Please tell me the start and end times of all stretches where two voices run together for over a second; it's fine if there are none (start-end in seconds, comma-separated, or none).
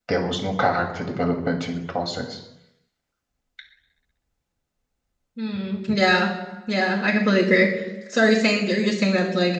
none